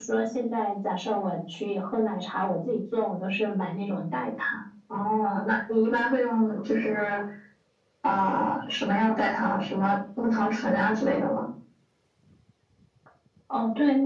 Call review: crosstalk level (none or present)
none